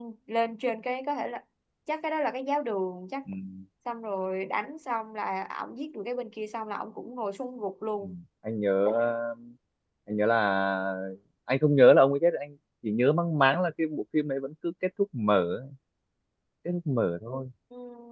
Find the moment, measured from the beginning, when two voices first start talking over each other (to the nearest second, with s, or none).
none